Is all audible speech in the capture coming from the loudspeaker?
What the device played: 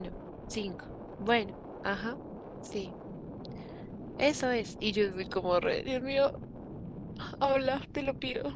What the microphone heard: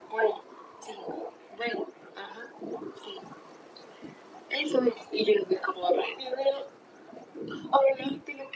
Yes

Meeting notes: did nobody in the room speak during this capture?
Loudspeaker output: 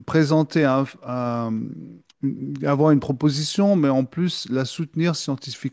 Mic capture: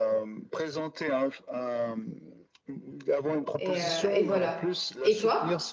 No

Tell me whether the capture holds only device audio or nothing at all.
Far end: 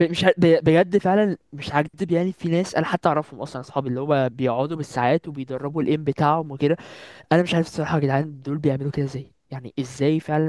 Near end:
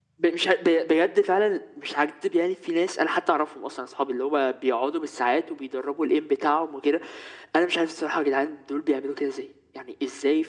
Yes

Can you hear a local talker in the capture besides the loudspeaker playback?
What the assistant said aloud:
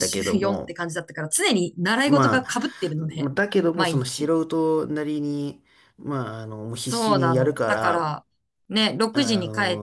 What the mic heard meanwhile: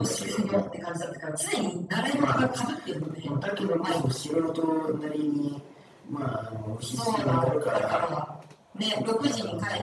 No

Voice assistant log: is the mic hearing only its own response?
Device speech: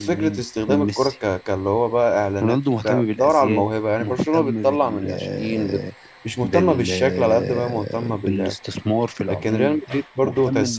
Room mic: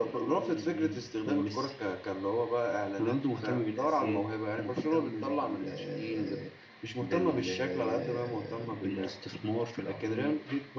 Yes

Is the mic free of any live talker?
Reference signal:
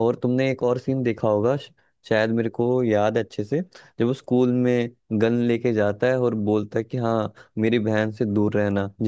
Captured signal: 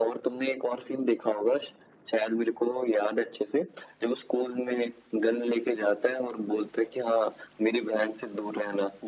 Yes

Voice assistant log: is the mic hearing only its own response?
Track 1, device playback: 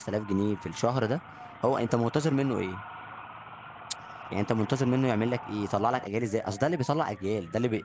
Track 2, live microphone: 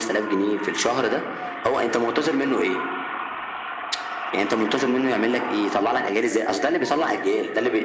Yes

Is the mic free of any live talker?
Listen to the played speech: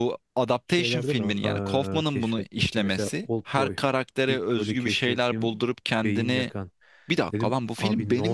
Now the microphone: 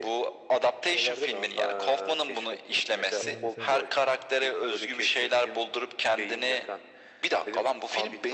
No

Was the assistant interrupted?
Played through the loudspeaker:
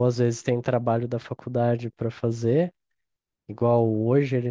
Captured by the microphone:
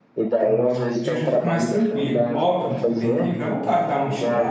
Yes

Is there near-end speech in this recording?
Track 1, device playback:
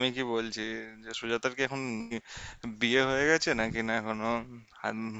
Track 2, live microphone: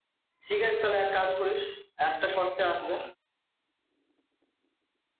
Yes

